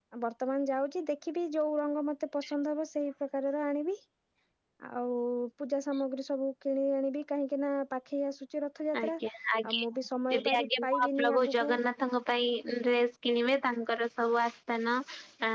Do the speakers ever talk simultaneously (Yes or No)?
Yes